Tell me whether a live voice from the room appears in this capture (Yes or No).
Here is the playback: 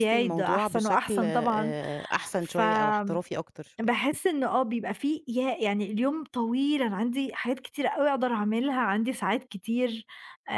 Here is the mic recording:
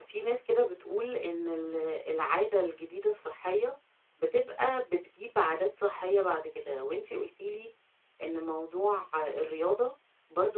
Yes